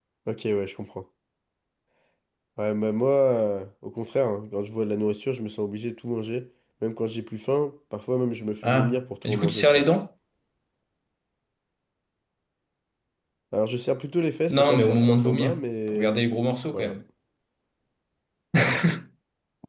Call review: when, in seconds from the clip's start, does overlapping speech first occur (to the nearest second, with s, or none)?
9 s